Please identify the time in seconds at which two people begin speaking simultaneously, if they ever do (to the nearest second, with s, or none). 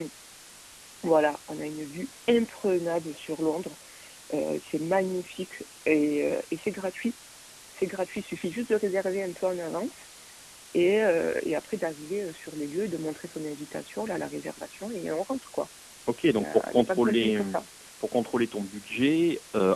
16 s